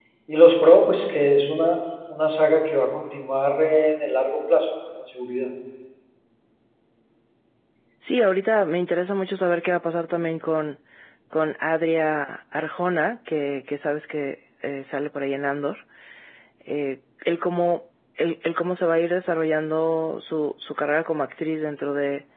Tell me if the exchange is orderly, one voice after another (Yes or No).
Yes